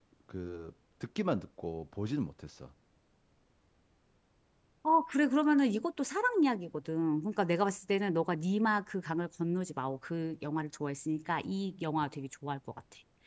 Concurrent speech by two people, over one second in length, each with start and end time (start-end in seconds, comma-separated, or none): none